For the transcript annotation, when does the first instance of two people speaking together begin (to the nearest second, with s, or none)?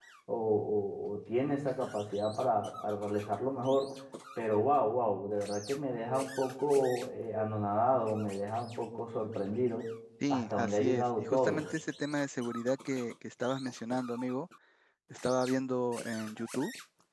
10 s